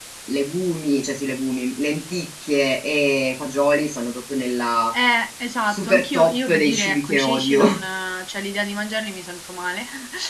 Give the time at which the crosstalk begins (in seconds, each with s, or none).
5.7 s